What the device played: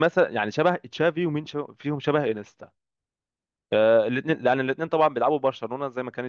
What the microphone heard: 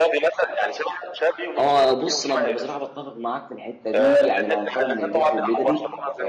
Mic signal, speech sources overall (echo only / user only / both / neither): both